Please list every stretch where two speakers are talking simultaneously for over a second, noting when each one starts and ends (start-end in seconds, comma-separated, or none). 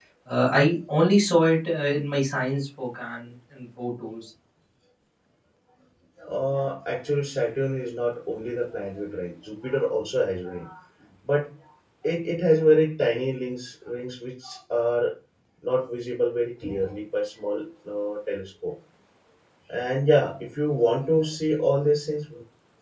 none